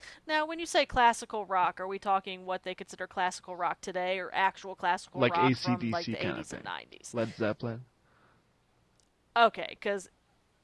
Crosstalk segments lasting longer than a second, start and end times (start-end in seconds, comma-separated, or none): 5.2-6.6